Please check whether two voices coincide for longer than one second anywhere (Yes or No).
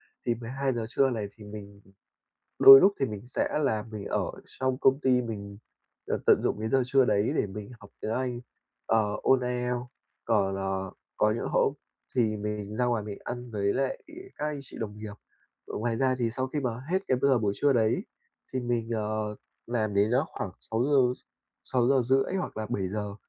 No